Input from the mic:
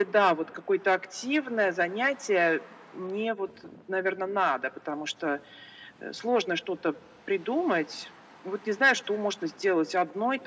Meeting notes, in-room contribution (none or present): none